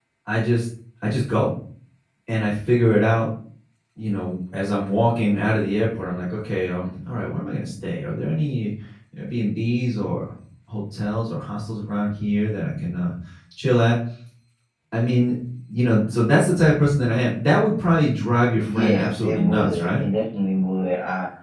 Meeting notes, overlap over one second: present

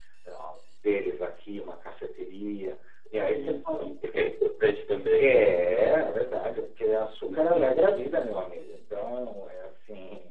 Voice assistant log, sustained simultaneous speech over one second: none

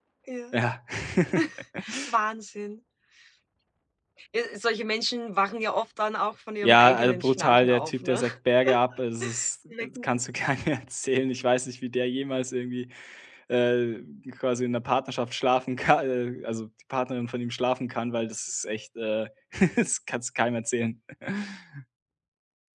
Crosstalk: present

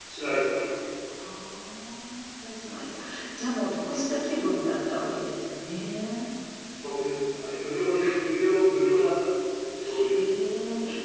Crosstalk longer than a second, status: none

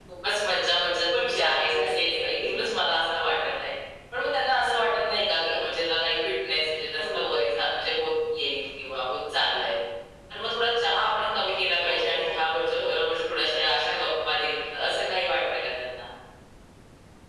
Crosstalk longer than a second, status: present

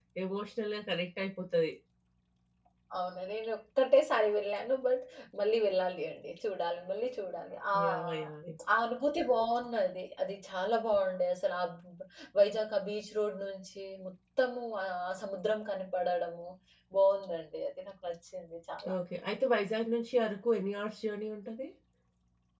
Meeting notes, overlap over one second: none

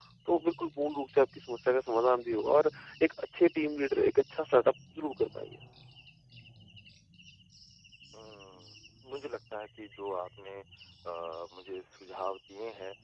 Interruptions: none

